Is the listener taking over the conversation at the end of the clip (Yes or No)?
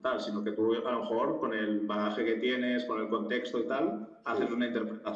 No